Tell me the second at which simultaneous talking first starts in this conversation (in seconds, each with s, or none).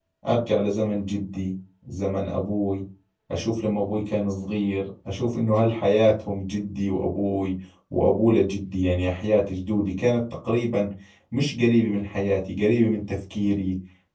none